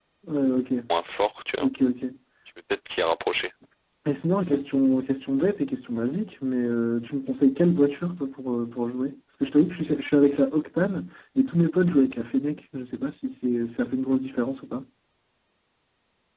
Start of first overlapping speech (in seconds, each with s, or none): none